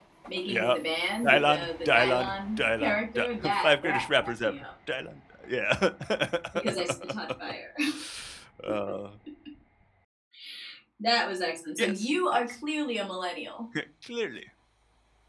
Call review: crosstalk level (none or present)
present